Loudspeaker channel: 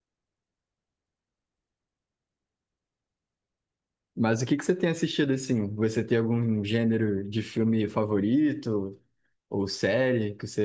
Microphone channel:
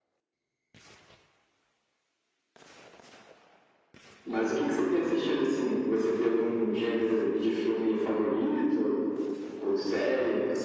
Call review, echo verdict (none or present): present